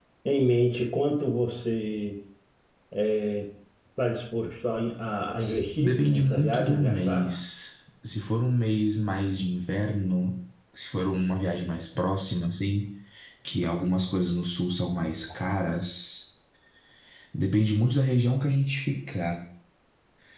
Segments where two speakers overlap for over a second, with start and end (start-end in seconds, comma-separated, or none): 5.8-7.3